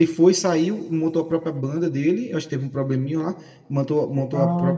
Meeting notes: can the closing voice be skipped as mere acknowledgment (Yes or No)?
Yes